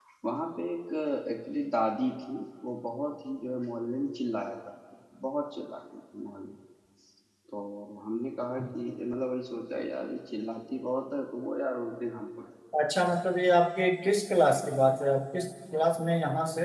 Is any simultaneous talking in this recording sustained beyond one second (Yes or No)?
No